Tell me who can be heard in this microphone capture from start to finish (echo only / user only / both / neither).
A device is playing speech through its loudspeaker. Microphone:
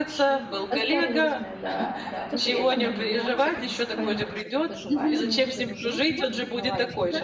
both